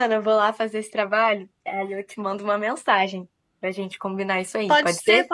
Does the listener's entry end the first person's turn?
Yes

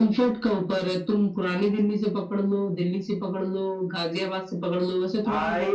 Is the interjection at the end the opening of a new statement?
Yes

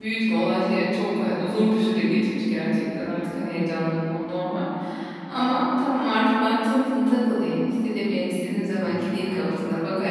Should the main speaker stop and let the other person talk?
No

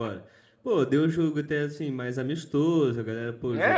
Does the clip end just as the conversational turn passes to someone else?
Yes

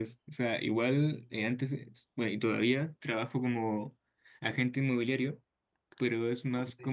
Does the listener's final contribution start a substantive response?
No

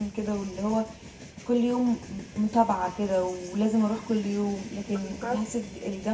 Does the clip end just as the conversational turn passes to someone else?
No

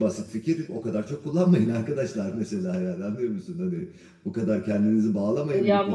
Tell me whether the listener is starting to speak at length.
Yes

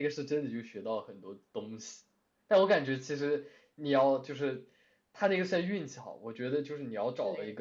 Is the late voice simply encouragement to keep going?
Yes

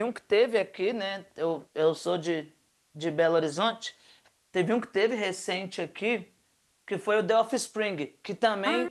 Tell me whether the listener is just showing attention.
Yes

